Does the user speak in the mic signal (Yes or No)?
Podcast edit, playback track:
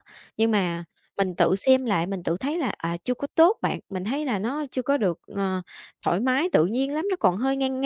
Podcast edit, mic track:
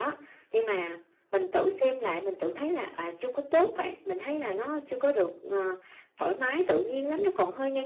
No